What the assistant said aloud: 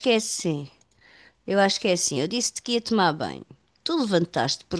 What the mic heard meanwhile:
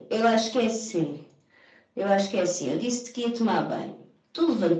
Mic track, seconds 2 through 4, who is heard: echo only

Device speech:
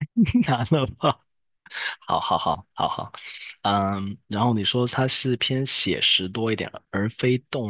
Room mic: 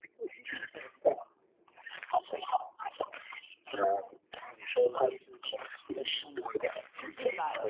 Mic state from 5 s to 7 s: both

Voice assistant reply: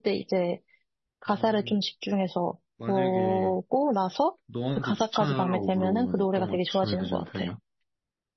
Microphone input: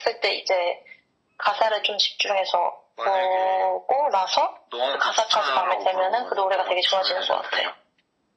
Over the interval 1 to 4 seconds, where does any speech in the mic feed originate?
echo only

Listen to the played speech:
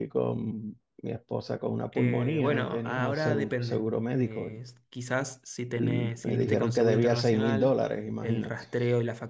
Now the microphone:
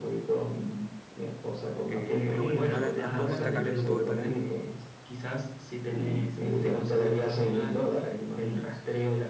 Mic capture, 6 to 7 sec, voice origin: echo only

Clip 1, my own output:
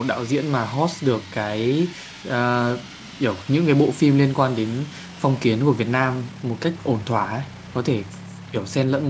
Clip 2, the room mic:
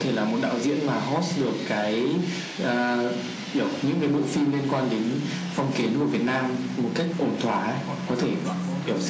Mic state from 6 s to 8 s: both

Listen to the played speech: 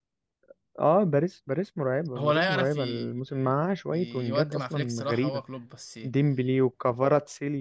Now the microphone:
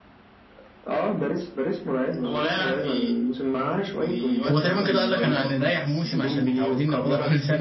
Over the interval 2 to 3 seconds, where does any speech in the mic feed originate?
echo only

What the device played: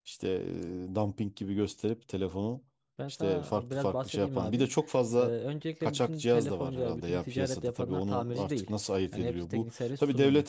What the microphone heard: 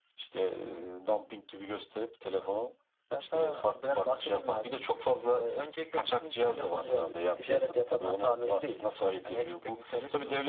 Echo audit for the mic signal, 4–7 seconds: echo only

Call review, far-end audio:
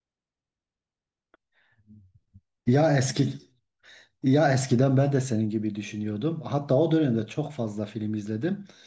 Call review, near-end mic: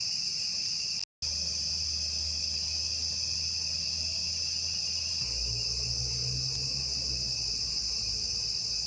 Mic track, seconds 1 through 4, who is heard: neither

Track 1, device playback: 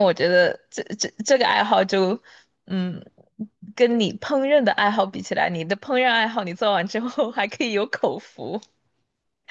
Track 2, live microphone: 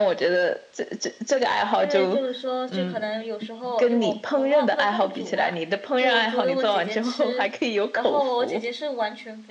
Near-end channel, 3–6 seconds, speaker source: both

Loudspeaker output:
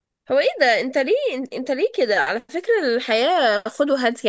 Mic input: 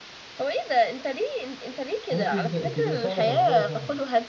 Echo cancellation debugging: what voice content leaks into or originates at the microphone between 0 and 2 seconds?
echo only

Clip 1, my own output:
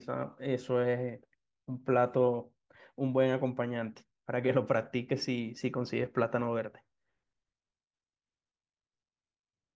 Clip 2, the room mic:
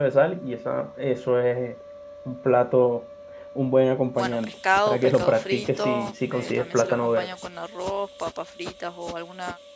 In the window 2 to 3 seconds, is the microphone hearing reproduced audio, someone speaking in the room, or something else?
echo only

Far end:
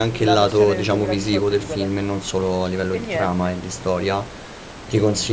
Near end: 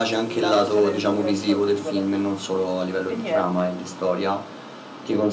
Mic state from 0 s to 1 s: echo only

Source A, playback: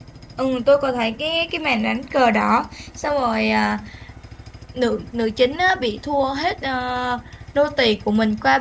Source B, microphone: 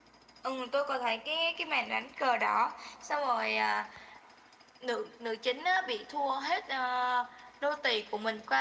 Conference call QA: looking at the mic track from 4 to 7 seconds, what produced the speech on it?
echo only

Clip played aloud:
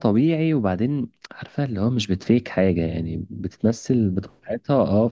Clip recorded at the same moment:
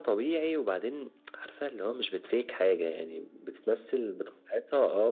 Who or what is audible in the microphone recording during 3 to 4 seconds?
echo only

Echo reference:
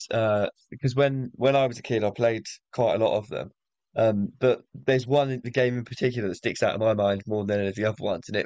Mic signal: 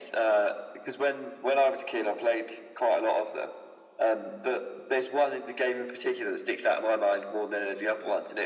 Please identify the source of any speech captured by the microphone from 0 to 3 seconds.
echo only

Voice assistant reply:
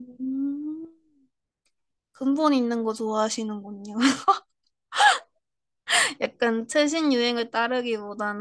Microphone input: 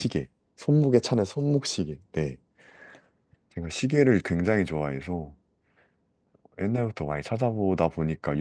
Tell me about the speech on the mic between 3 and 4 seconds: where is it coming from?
user only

